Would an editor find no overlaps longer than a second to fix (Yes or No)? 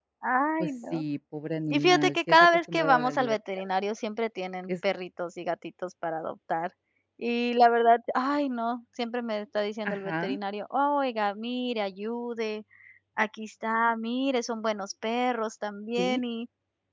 No